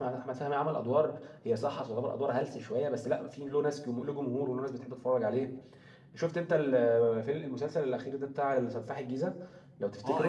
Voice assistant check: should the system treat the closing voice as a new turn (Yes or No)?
Yes